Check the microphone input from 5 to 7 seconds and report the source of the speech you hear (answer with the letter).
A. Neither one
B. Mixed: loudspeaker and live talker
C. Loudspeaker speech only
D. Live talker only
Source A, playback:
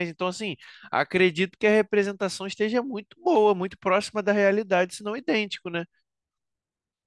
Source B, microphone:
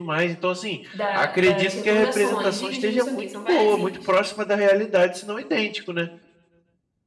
C